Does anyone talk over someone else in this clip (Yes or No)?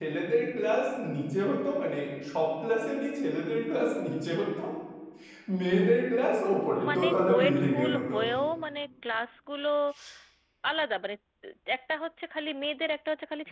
Yes